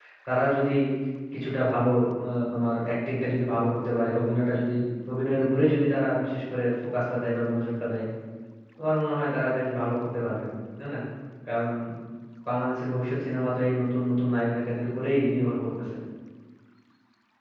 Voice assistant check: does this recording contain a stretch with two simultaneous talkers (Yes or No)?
No